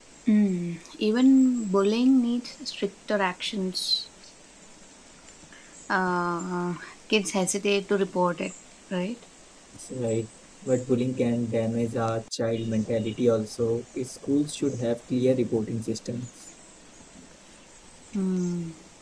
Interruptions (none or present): none